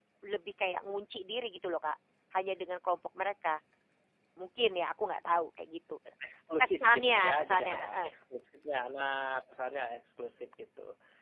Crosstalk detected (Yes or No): Yes